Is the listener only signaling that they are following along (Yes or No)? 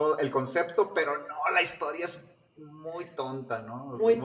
No